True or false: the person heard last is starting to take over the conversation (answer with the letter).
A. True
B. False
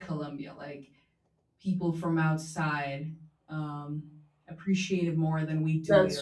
B